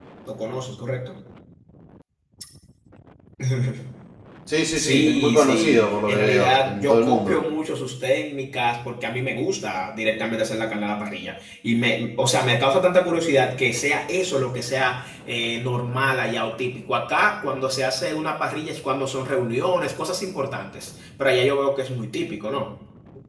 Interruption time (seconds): 4.8 s

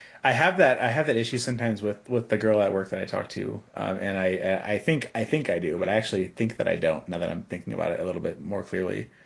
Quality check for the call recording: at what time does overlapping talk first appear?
none

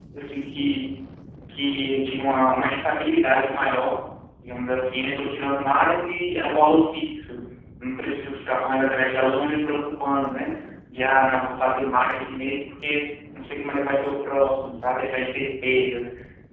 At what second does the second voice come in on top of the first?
none

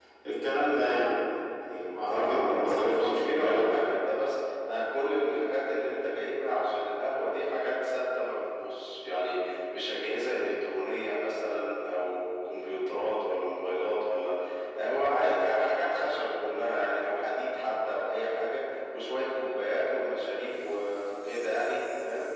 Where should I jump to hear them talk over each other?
2.1 s

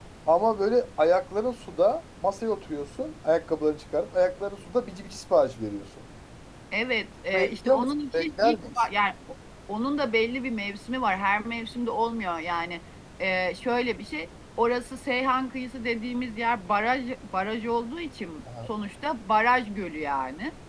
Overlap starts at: 7.3 s

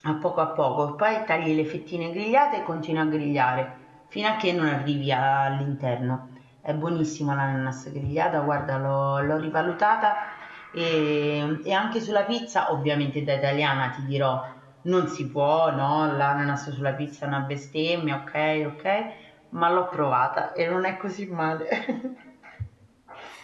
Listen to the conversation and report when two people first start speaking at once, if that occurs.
none

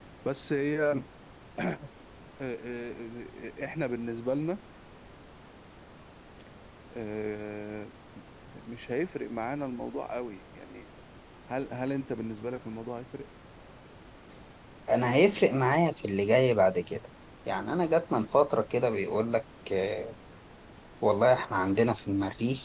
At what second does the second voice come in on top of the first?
none

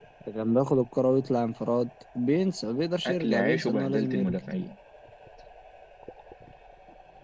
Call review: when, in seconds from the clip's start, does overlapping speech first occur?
3.0 s

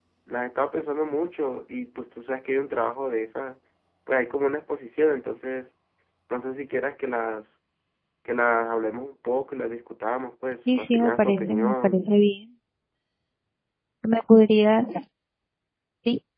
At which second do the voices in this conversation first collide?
10.7 s

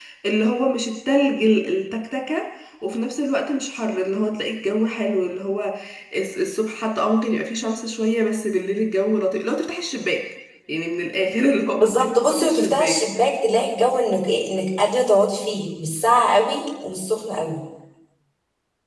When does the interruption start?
11.8 s

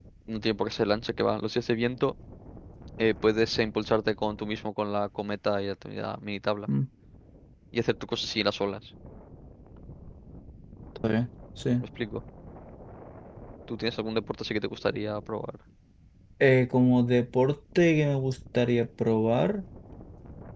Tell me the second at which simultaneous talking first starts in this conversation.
none

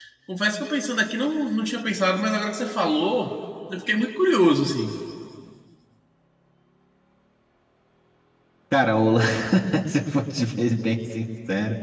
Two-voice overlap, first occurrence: none

